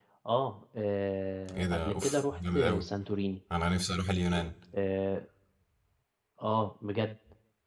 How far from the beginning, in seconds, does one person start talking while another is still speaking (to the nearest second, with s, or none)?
1 s